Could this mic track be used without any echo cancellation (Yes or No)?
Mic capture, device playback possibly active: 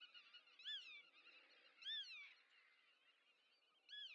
Yes